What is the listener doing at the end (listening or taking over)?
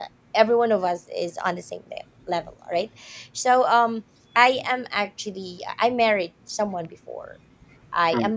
listening